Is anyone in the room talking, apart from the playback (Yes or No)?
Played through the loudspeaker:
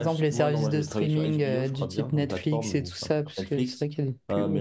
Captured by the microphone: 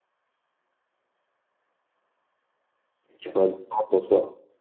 Yes